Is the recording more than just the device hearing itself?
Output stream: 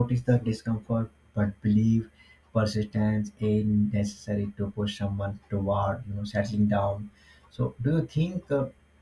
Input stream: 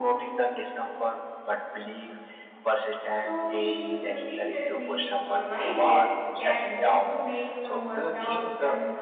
Yes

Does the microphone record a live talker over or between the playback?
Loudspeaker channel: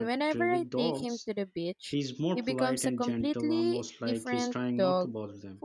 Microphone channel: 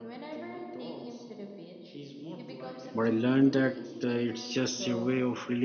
Yes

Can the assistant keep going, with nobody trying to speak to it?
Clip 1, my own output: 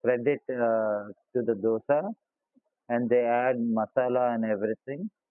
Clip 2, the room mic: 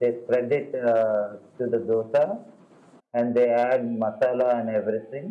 Yes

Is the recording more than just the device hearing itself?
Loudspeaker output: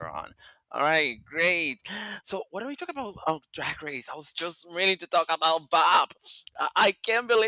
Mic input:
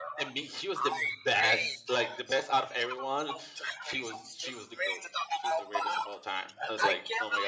Yes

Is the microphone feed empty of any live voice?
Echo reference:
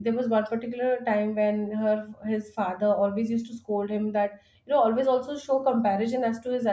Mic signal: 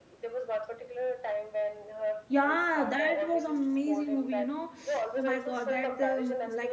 No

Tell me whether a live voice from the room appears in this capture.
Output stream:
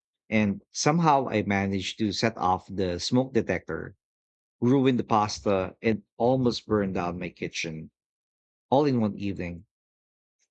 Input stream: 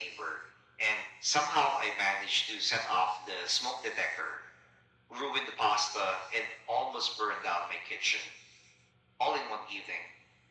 No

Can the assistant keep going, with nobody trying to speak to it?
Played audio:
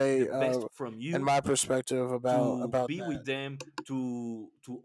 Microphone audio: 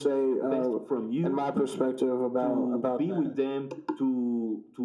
Yes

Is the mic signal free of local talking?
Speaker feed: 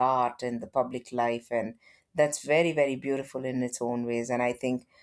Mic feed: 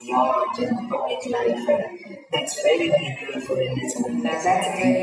No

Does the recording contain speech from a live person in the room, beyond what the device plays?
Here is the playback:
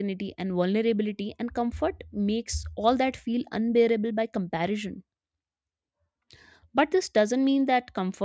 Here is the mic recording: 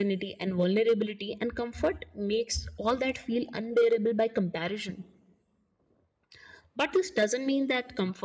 No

